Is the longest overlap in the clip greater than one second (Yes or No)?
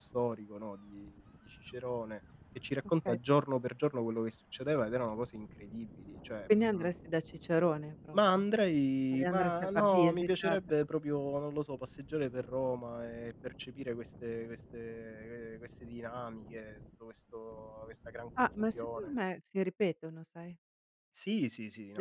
Yes